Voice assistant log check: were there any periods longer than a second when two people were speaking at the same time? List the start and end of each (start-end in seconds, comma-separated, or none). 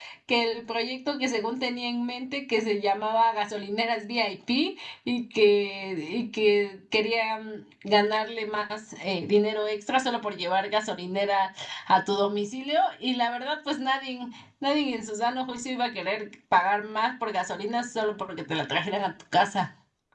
none